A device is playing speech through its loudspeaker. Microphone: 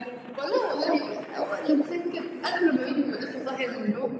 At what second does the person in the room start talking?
none

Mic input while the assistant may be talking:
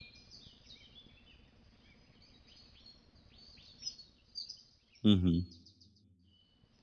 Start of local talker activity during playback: 5.0 s

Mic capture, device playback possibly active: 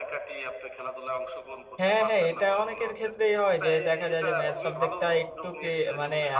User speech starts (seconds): 1.8 s

